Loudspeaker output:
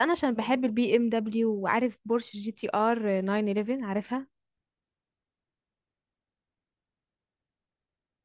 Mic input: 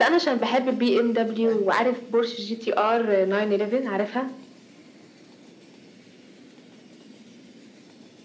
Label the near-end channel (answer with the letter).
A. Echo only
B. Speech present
B